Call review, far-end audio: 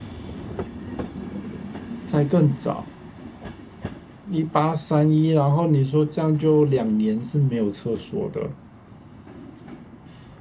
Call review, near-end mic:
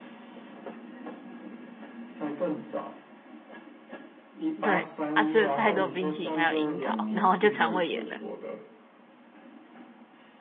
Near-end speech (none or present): present